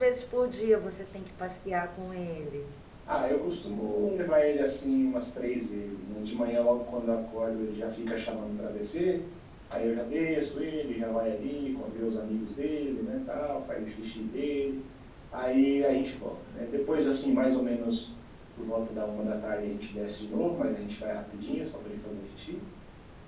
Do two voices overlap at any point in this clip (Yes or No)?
No